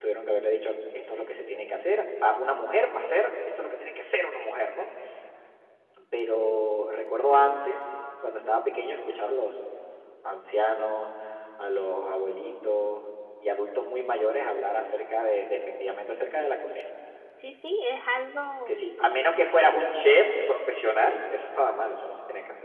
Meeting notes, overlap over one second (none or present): none